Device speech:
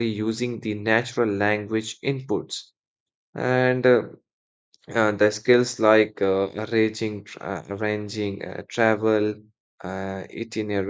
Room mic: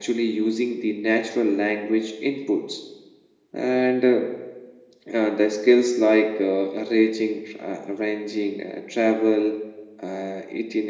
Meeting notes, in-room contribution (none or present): none